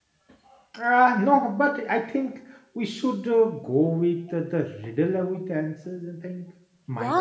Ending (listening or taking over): taking over